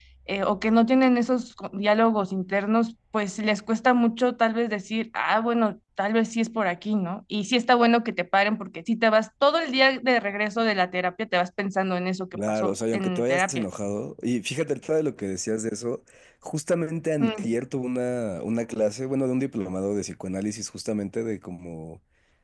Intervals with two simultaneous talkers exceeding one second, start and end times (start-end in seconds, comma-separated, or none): 12.3-13.6